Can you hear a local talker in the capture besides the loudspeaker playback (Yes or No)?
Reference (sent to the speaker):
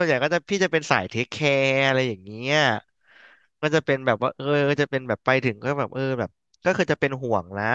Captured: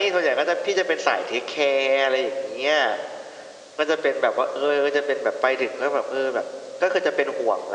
No